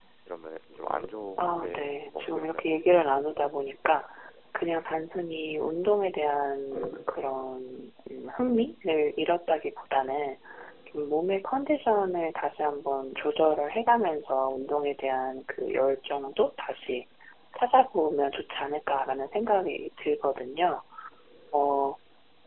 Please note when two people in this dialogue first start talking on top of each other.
1.4 s

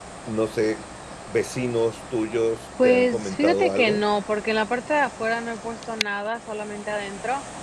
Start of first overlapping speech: 2.8 s

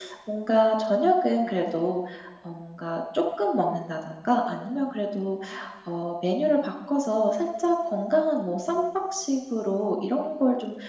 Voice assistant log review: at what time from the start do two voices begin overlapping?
none

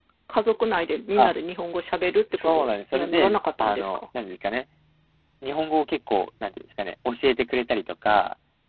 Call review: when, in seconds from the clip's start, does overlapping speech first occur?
2.4 s

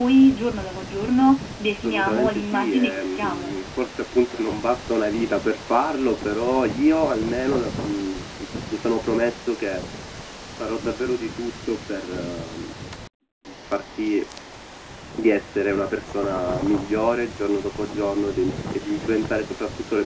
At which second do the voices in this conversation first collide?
1.8 s

